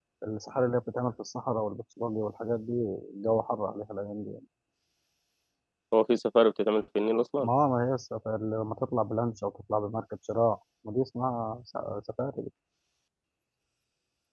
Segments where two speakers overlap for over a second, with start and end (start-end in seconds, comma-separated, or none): none